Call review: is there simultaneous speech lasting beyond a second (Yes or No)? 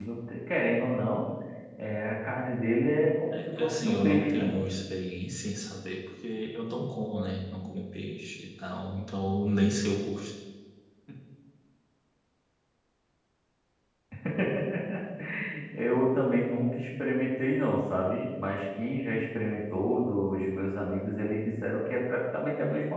Yes